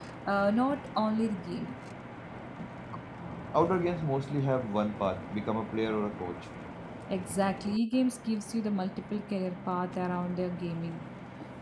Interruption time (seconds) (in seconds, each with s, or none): none